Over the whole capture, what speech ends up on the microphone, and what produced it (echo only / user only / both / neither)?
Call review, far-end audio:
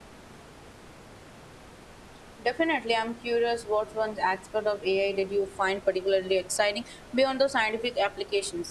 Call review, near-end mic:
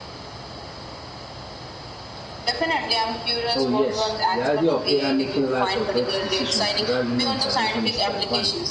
both